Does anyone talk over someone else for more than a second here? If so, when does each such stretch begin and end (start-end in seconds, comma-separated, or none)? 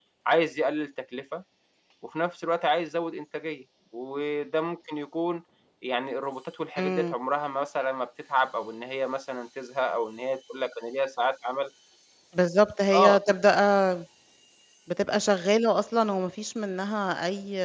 none